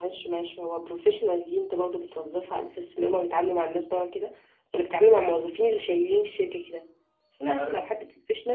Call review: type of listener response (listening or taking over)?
listening